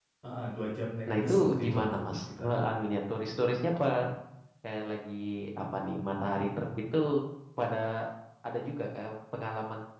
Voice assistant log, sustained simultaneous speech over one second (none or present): present